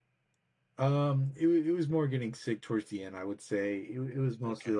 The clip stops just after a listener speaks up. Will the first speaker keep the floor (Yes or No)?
Yes